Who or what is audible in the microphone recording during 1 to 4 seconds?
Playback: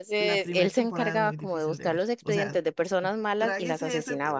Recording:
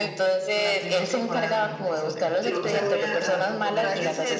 both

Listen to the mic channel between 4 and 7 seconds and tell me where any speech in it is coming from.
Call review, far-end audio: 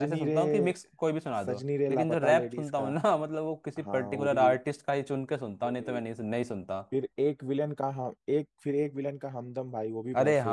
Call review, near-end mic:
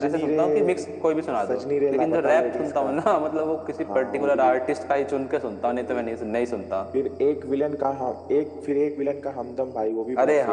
echo only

